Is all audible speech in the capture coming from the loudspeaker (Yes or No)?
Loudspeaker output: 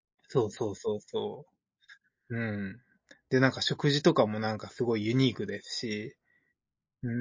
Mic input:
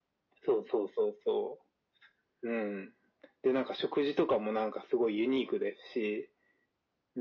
Yes